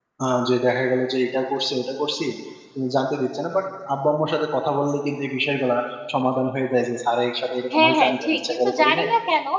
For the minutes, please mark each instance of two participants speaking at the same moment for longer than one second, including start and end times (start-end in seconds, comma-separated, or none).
7.7-9.1